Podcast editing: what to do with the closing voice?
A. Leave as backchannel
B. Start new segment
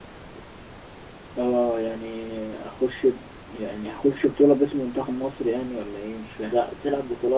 B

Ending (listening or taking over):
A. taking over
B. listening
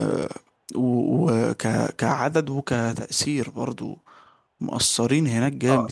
A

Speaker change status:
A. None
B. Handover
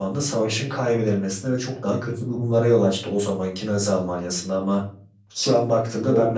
A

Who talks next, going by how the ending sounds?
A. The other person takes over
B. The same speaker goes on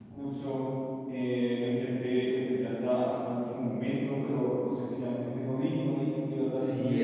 A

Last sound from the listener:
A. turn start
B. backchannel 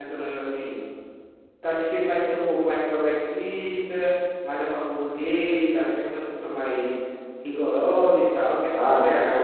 A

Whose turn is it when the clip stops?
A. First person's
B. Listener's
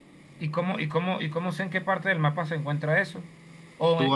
B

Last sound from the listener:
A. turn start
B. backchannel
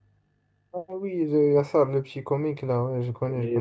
A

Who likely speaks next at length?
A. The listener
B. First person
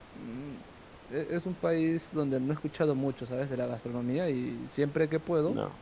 B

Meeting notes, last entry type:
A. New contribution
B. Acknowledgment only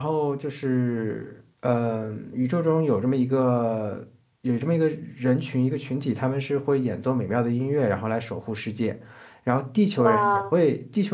B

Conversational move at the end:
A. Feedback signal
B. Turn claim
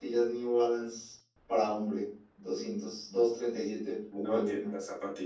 B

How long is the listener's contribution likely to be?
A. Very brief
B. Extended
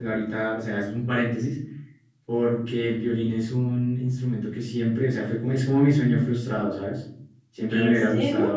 A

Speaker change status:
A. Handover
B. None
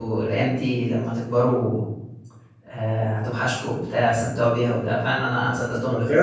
A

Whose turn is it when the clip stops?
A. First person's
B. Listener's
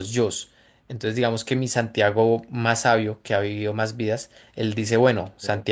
A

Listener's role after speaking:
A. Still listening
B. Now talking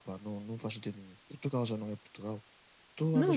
A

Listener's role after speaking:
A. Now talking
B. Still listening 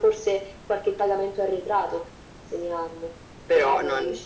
B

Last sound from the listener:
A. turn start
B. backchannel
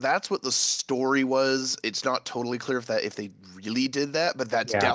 B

